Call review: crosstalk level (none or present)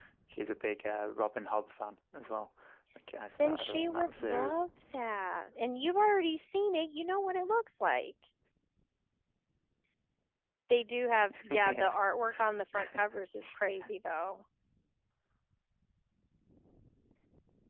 present